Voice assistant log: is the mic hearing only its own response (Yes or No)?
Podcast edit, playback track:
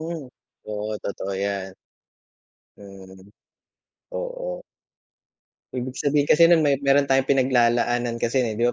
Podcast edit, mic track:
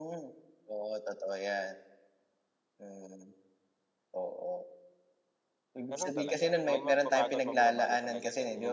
No